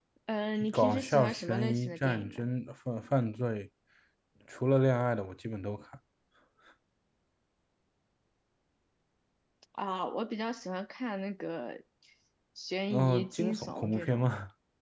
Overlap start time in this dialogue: 0.7 s

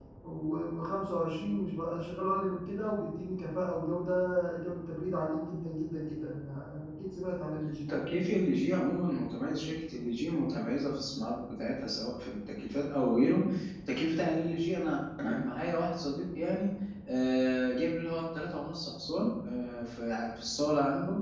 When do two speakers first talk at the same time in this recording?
none

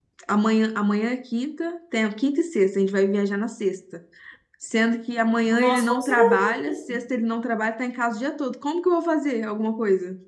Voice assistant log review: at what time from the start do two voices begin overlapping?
5.5 s

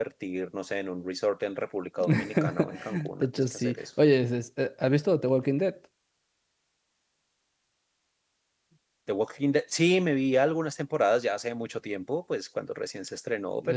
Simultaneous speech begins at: 2.0 s

